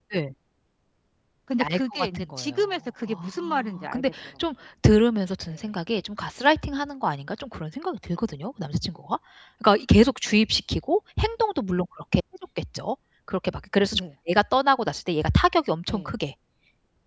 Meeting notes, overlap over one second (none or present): present